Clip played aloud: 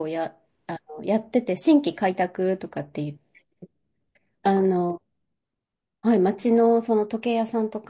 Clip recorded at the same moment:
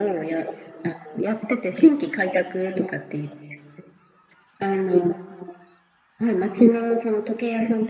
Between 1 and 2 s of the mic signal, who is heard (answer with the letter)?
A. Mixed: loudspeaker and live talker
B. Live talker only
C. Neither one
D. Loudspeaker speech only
D